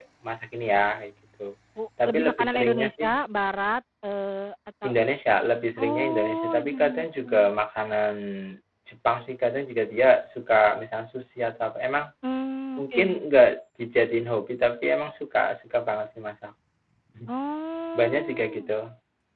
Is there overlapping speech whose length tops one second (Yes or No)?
Yes